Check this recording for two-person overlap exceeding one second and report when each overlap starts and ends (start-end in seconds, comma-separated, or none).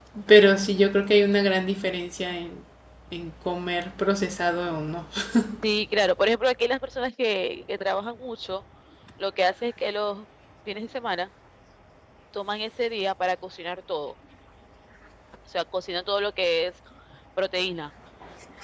none